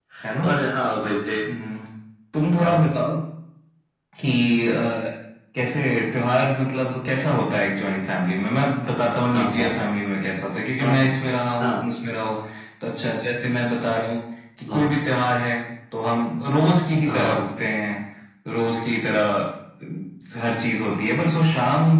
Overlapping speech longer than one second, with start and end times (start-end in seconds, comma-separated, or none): none